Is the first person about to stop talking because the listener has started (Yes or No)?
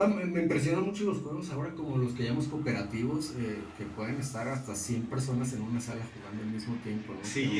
Yes